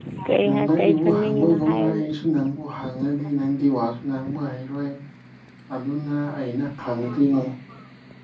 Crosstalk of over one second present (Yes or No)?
Yes